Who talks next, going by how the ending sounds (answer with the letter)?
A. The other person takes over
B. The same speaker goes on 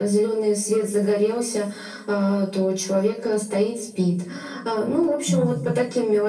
B